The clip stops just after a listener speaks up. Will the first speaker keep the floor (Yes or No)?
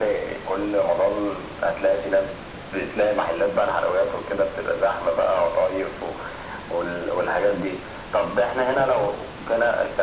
Yes